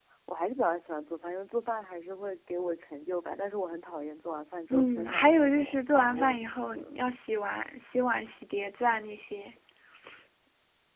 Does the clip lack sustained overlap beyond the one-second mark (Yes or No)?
No